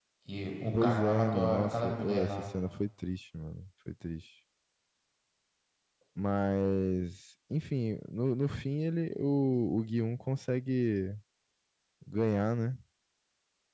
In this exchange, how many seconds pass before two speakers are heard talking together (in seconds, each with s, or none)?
0.7 s